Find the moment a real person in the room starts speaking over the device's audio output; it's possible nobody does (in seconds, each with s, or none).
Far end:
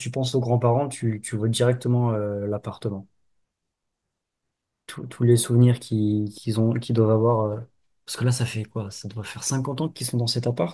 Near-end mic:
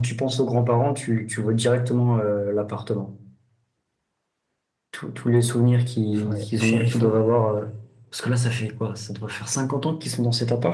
6.2 s